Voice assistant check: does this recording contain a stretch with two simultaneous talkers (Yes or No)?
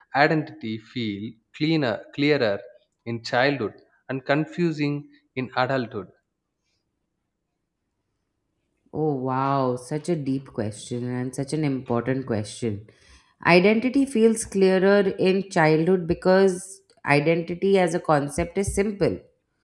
No